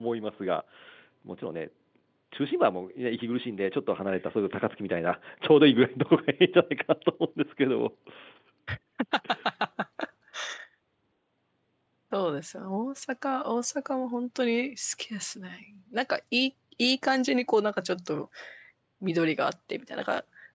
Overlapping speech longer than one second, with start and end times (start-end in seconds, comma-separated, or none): none